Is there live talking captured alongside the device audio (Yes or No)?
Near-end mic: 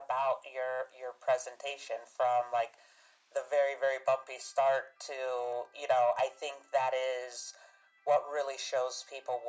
No